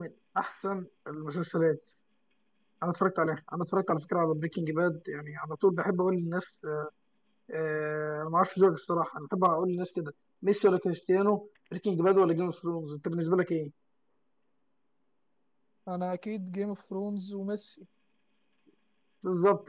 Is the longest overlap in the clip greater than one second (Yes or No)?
No